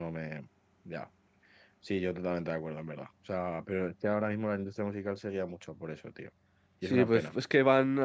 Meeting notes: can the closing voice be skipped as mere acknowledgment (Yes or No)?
No